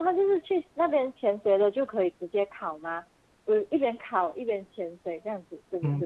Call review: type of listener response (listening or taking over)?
taking over